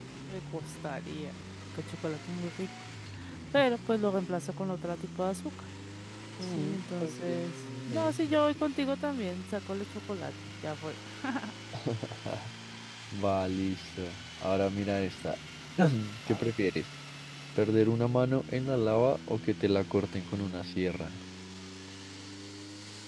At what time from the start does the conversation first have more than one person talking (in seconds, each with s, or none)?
6.4 s